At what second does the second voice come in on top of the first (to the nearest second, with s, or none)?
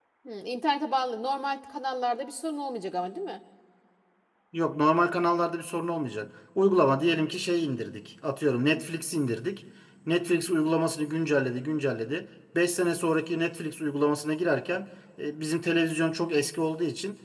none